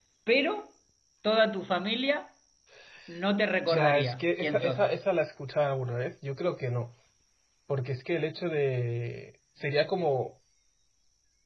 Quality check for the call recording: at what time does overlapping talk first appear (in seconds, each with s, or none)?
3.7 s